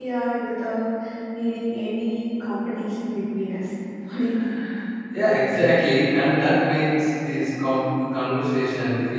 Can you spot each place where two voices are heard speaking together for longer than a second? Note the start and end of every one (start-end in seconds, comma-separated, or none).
none